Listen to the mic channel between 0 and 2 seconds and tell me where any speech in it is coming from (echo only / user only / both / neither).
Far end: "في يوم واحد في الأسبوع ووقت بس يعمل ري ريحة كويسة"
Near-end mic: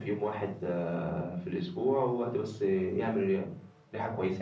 echo only